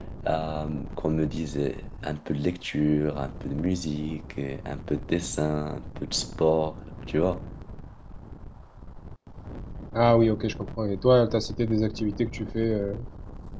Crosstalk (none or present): none